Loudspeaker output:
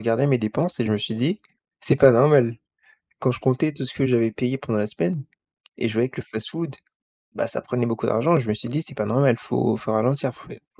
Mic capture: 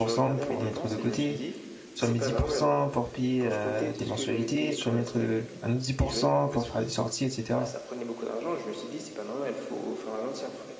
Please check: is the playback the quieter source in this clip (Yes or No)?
Yes